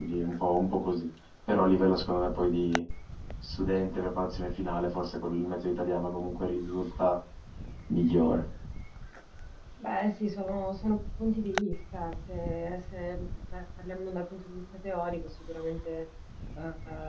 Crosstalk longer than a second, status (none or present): none